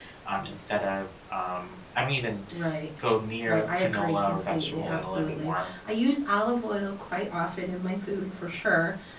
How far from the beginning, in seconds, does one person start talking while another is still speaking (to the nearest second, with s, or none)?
3 s